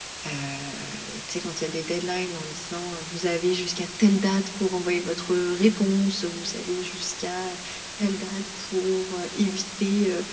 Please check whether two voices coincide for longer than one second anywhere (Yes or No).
No